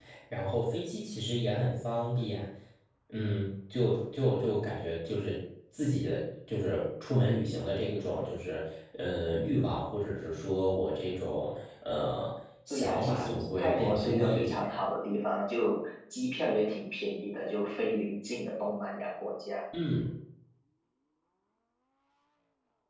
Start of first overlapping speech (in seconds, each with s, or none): 12.7 s